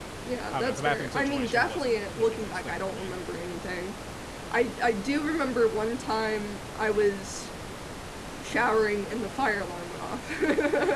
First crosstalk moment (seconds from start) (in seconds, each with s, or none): 0.5 s